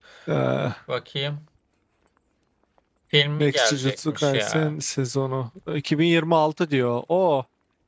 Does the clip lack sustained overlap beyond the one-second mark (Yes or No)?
No